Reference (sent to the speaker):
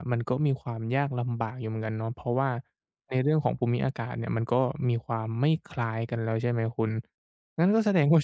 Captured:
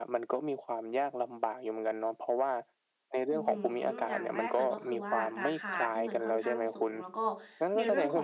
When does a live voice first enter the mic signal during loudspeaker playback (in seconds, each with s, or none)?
3.3 s